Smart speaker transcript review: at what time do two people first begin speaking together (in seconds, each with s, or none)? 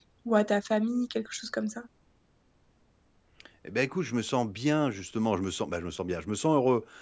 none